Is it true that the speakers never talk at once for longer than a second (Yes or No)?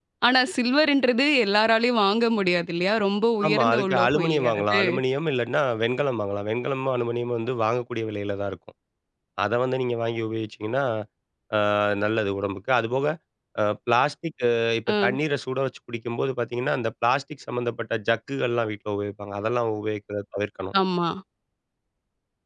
No